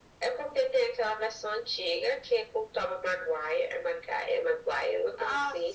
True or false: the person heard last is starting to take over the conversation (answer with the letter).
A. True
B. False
A